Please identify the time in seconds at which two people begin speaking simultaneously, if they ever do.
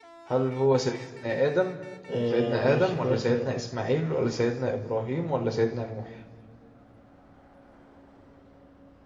2 s

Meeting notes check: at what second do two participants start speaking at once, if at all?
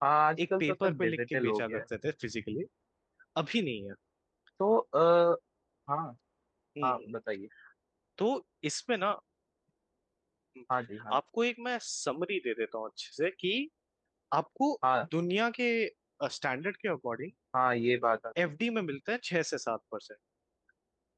1 s

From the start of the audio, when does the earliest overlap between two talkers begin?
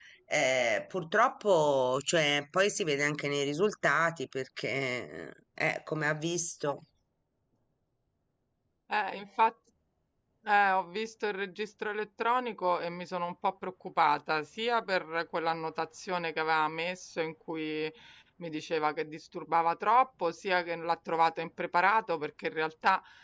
none

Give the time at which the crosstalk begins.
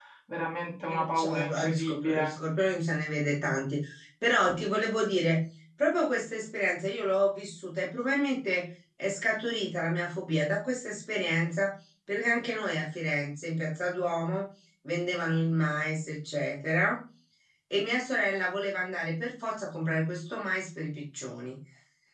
1 s

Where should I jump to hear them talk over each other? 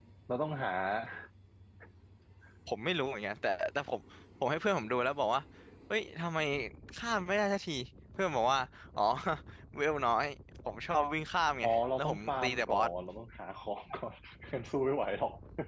12 s

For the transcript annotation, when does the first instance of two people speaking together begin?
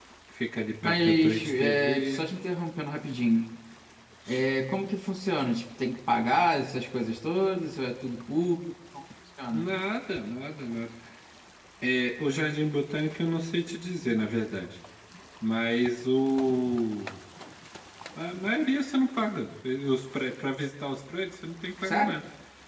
1 s

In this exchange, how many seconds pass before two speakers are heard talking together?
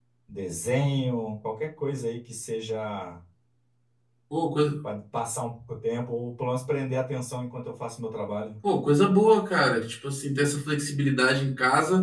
none

